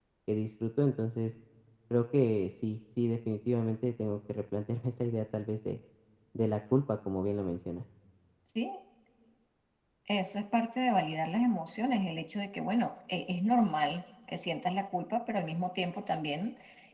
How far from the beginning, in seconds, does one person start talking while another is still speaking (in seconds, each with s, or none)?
none